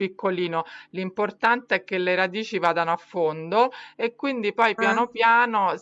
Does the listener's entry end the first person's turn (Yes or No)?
No